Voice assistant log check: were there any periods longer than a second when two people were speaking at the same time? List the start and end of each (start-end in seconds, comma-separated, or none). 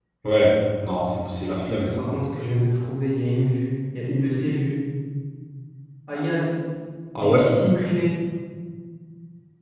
none